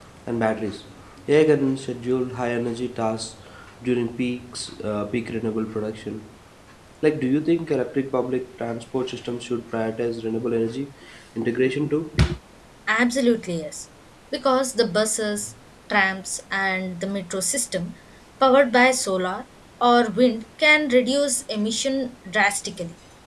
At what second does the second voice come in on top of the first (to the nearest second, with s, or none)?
none